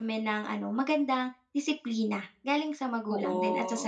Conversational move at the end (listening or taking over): taking over